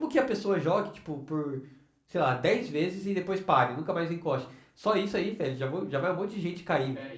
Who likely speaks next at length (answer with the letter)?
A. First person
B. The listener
B